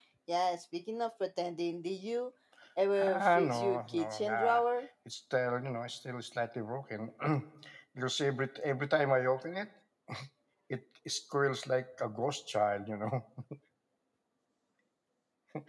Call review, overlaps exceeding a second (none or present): present